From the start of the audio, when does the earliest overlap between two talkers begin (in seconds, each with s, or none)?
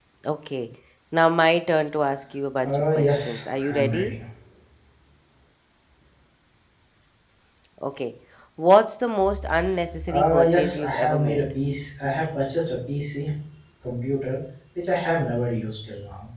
2.6 s